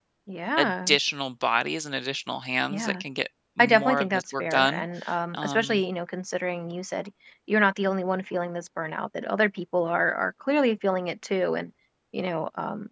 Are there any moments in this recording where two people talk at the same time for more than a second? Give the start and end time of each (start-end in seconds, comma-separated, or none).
3.6-4.8